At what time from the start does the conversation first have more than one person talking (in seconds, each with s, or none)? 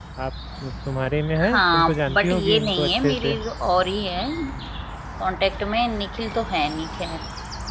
1.4 s